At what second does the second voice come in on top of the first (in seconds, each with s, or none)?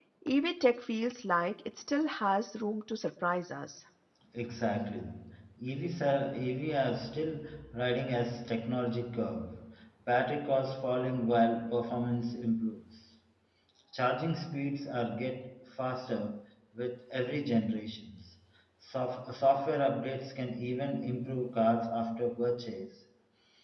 none